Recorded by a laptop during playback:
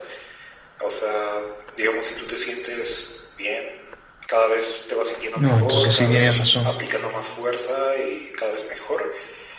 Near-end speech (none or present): present